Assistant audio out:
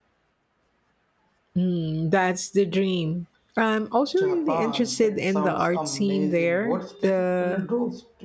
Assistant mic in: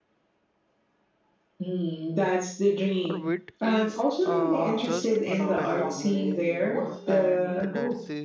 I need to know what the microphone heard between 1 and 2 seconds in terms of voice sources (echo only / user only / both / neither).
echo only